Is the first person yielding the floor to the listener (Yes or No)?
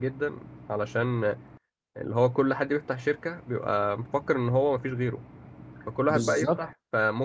No